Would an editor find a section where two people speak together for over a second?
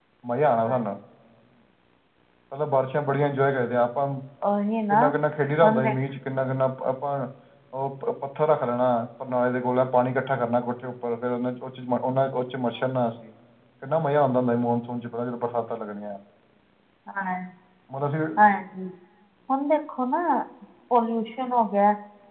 No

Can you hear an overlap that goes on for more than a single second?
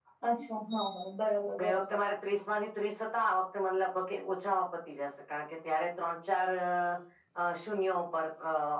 No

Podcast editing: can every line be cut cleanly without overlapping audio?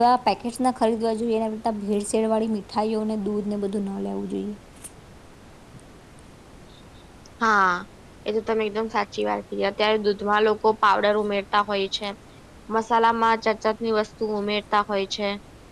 Yes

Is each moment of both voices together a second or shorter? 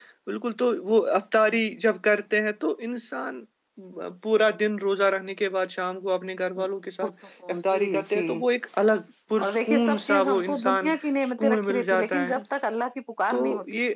No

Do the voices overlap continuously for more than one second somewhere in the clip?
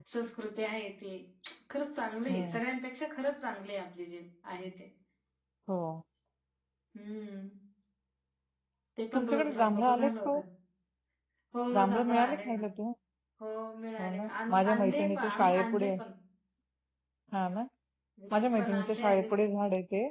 Yes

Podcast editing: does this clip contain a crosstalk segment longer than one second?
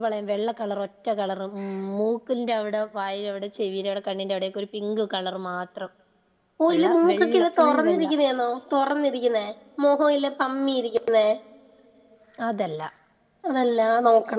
Yes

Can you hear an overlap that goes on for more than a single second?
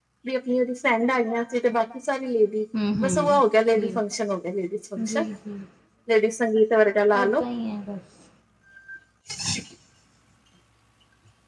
No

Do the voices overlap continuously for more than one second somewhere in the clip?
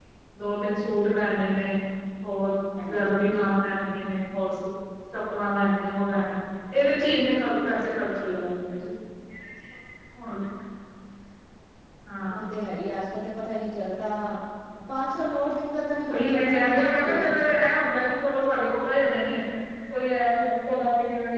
Yes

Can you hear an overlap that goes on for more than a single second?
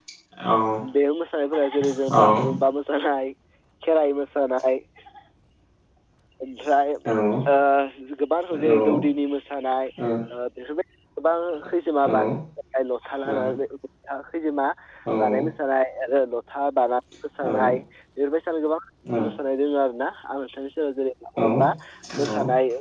No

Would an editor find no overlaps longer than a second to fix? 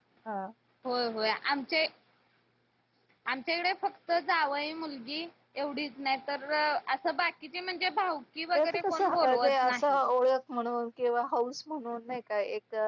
No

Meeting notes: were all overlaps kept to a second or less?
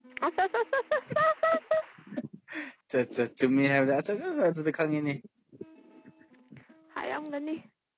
Yes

